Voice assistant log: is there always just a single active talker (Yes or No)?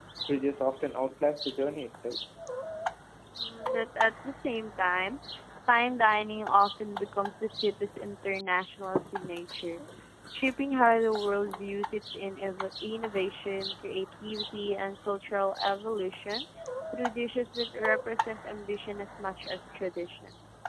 Yes